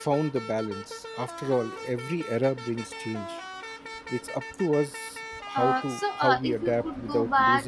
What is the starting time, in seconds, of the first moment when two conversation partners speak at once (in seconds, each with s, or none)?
5.3 s